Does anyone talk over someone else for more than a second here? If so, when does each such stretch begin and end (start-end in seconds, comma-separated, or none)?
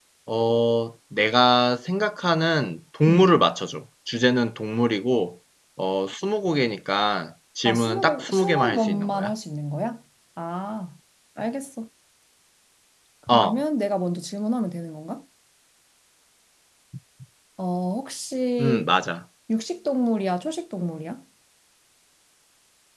7.6-9.3